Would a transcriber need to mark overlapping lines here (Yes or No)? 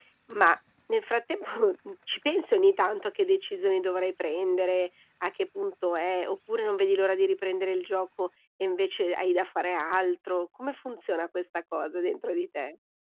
No